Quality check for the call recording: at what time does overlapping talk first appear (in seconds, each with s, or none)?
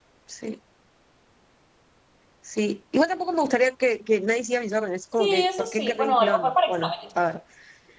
5.1 s